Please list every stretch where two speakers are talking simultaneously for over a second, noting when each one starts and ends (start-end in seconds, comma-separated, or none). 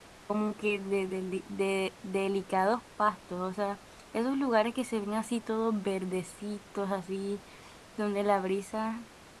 none